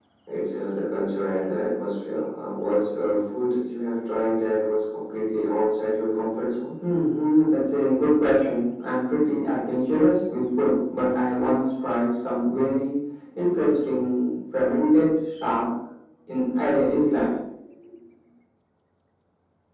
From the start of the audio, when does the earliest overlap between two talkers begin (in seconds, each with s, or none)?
none